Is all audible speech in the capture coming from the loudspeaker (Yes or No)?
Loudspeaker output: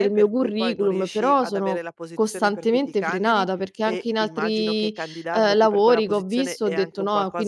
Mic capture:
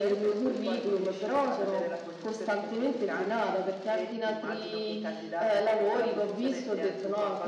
Yes